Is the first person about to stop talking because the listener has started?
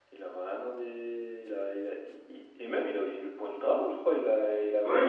Yes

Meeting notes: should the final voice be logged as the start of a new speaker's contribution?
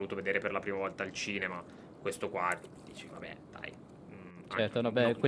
Yes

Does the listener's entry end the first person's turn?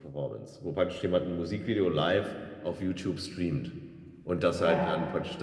No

